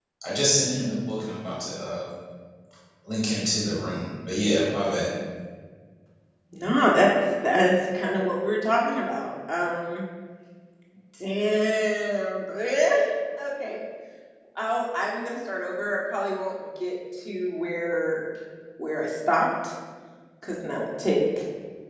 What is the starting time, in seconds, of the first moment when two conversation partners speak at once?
none

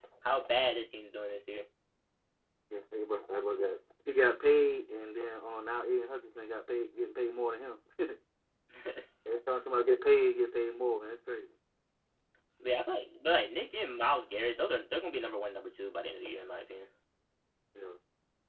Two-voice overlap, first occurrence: none

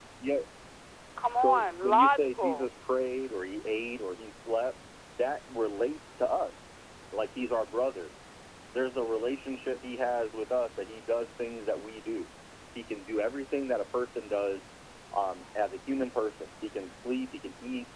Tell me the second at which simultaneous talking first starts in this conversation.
1.4 s

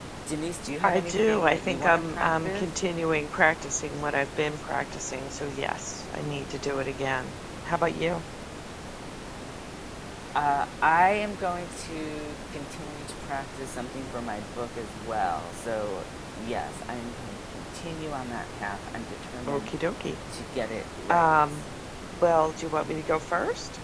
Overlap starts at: 0.8 s

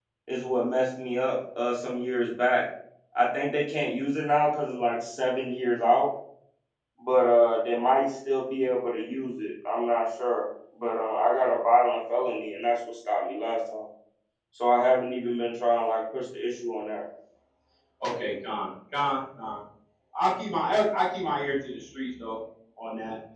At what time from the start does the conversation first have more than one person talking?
none

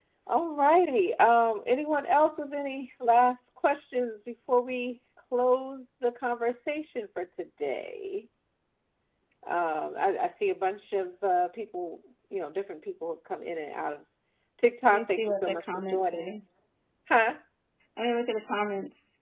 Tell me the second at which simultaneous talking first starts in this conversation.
14.9 s

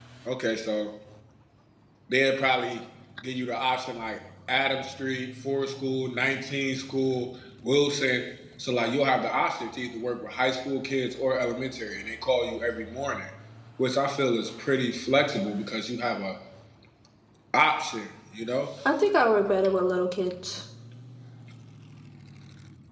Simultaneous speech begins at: none

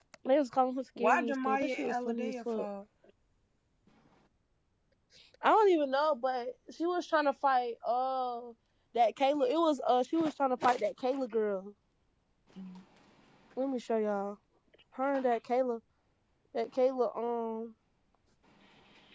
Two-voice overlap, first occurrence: 1.0 s

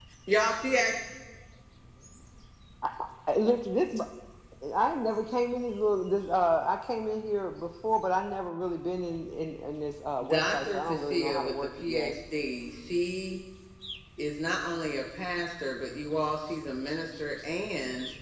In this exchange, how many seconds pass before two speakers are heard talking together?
10.2 s

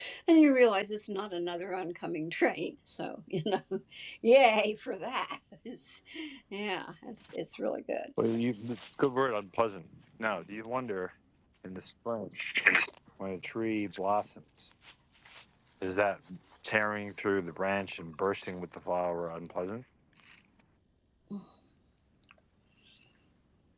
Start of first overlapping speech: none

